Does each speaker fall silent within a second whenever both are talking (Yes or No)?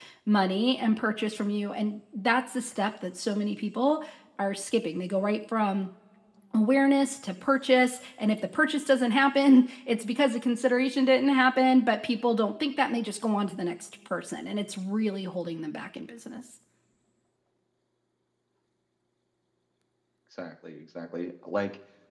Yes